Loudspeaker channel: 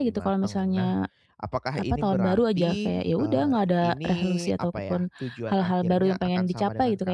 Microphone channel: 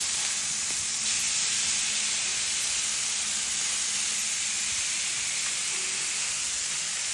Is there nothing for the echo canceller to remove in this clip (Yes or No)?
Yes